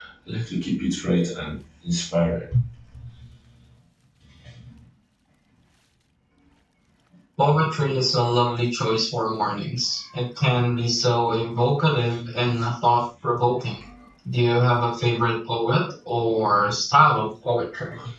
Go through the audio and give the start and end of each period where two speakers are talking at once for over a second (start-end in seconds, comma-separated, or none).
none